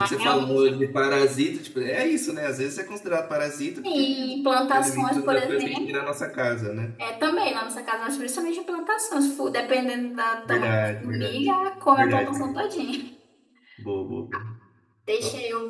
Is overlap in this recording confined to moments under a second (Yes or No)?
No